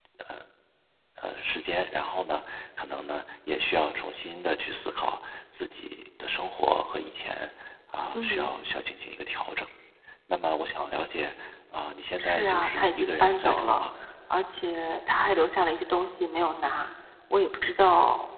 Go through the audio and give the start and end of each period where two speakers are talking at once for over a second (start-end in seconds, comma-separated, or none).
12.2-13.8